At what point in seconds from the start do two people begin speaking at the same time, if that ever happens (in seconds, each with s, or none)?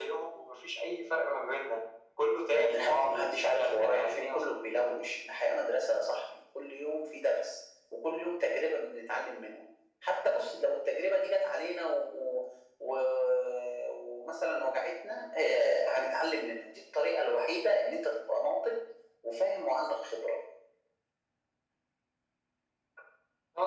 2.5 s